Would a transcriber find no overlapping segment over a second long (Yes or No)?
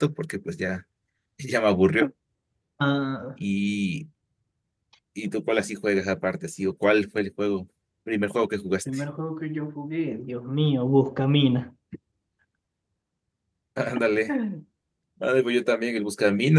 Yes